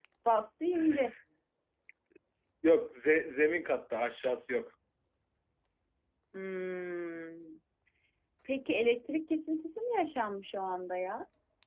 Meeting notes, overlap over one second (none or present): none